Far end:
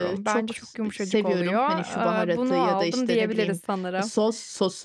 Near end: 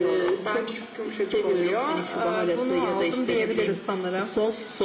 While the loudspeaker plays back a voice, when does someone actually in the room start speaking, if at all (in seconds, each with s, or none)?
none